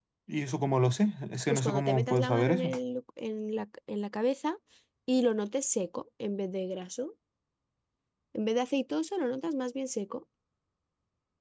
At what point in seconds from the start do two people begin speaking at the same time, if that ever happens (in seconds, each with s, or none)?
1.5 s